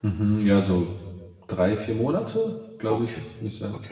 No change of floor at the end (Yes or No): No